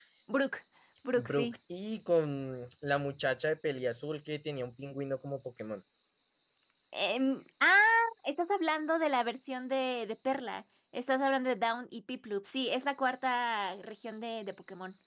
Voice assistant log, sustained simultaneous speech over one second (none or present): none